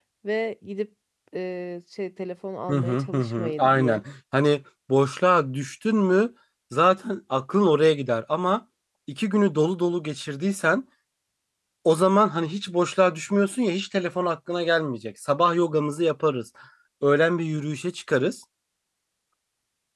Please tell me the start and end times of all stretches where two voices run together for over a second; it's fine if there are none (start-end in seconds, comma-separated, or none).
2.7-4.0